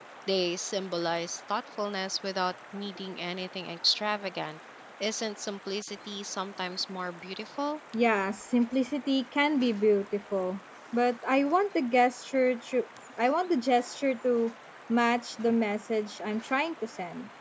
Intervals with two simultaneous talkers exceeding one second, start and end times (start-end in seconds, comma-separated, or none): none